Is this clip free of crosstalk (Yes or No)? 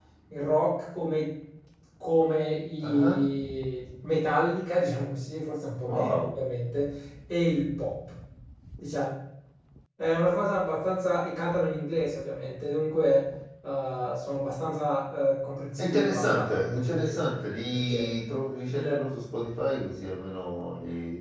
No